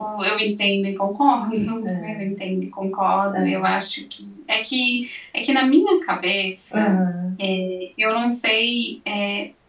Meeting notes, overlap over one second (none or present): none